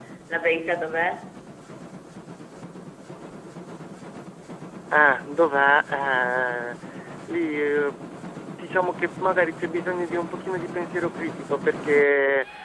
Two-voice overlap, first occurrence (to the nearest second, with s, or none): none